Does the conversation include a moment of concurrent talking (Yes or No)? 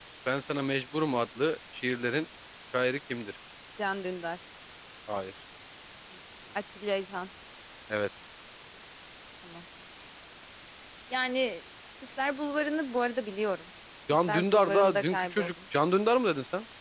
Yes